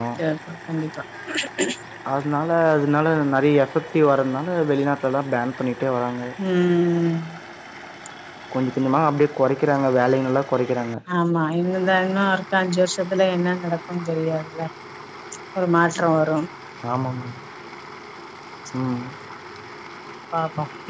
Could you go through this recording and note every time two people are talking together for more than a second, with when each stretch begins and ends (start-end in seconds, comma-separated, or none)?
none